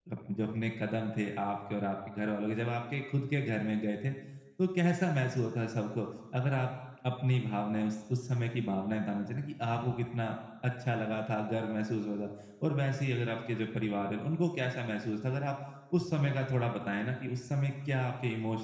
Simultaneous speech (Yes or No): No